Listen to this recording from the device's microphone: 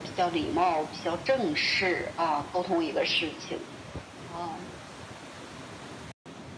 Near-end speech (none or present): none